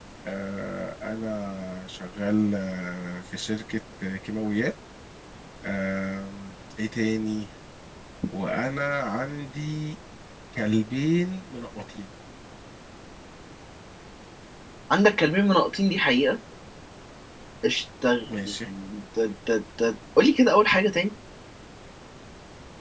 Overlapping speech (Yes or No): No